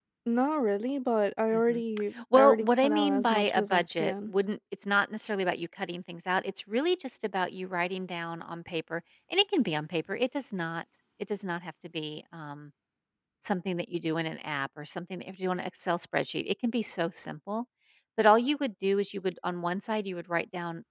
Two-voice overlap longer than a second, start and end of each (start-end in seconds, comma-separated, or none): 2.3-4.3